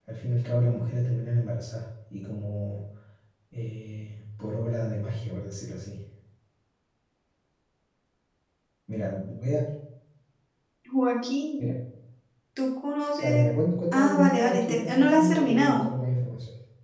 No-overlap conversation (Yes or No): No